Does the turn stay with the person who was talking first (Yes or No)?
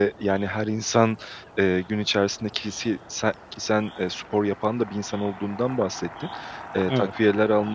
Yes